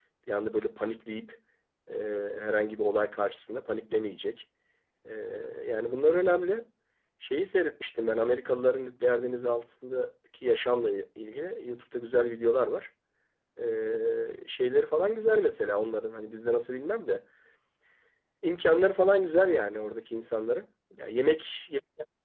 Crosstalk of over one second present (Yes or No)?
No